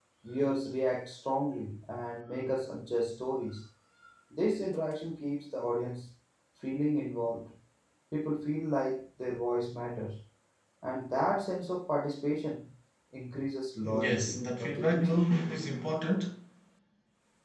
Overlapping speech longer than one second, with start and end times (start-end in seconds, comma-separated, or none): 13.8-15.3